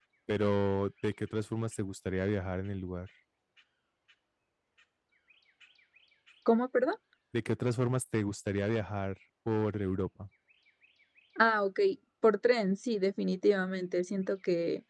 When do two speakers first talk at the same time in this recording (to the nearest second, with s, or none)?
none